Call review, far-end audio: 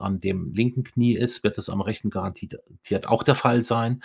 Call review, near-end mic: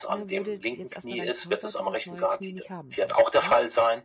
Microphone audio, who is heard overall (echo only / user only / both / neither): both